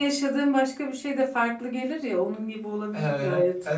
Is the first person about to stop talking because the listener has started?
Yes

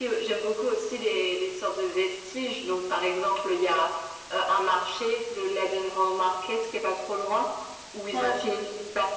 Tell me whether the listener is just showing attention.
Yes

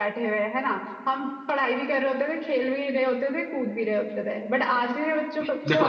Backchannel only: Yes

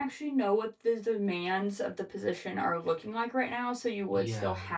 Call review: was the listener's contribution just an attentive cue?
Yes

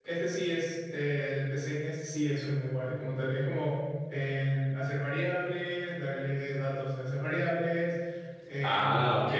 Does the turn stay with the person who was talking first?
Yes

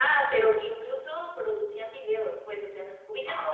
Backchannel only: Yes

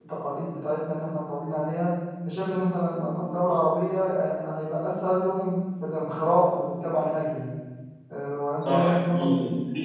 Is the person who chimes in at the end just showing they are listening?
No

